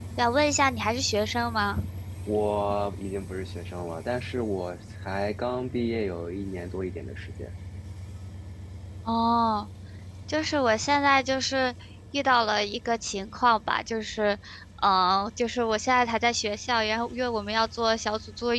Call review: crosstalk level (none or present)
none